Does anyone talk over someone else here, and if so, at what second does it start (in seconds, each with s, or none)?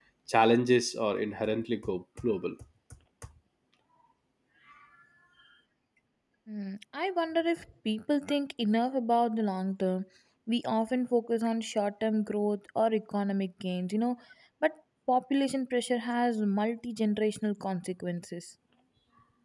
none